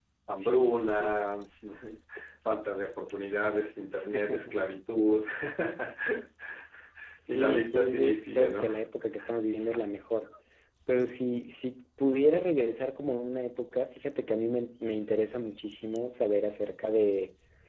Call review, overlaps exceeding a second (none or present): present